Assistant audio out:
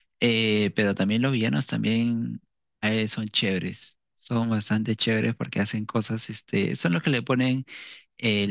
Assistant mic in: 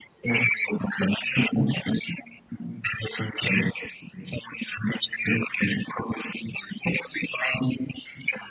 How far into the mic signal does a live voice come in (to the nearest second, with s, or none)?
none